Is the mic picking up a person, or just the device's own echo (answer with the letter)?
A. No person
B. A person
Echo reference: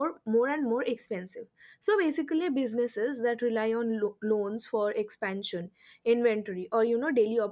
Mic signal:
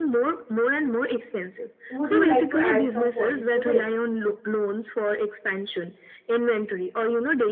B